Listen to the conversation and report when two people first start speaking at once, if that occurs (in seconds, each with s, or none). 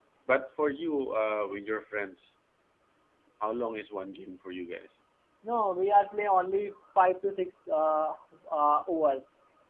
none